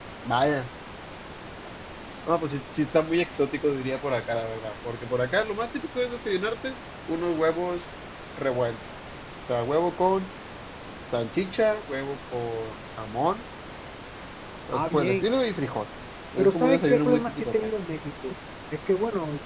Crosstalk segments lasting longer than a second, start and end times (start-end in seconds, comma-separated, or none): 16.4-17.7